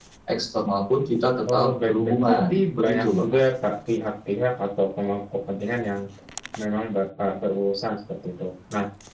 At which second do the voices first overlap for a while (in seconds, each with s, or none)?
1.4 s